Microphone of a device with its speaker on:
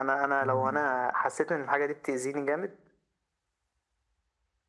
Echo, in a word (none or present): present